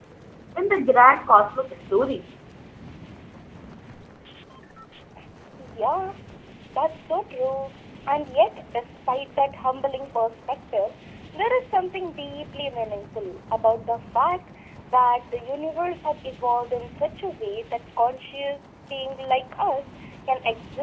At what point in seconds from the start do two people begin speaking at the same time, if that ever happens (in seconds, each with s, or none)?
none